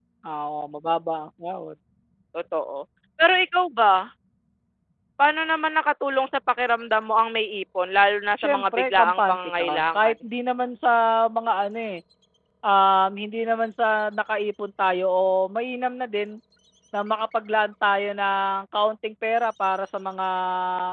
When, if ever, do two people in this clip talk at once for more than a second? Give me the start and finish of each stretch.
8.4-10.1

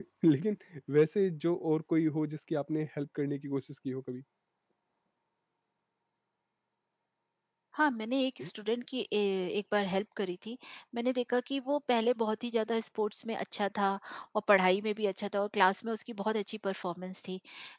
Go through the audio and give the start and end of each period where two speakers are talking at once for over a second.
none

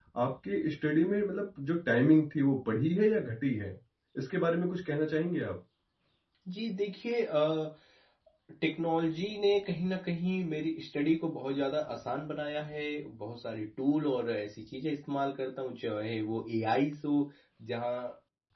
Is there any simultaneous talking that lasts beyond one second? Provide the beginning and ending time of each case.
none

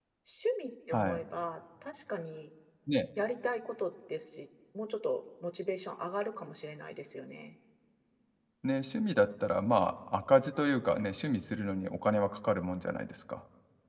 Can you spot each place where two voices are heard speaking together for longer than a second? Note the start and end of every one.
none

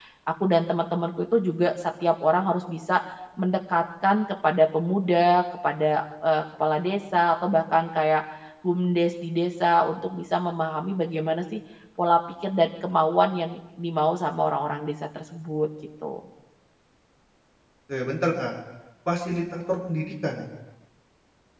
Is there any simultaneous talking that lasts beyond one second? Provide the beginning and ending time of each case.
none

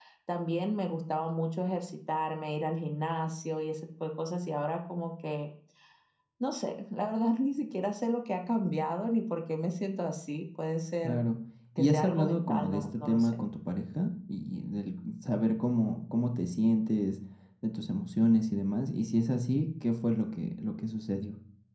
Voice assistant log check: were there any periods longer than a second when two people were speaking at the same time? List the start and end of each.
11.8-13.3

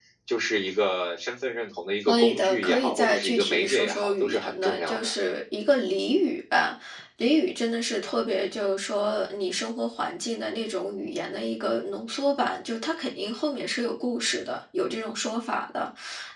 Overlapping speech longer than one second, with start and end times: 2.1-5.1

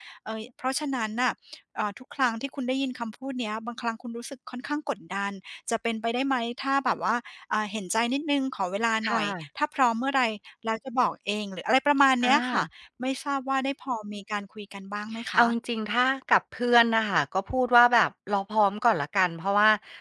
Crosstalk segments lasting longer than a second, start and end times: none

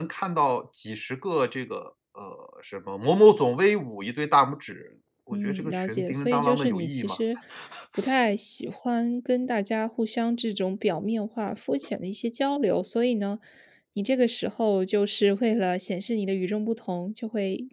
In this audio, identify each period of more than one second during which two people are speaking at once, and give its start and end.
5.3-7.2

